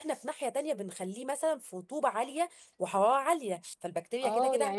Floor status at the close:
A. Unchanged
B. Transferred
B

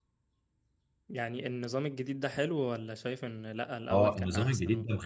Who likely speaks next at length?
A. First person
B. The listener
B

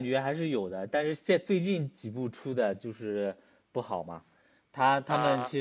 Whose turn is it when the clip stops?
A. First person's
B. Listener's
A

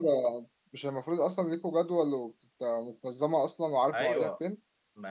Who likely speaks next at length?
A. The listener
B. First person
A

